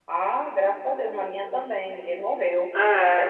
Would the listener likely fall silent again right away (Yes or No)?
Yes